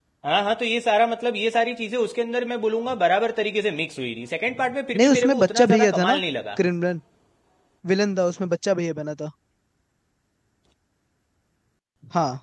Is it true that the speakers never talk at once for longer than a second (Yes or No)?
No